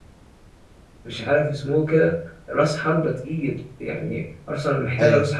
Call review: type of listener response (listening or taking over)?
listening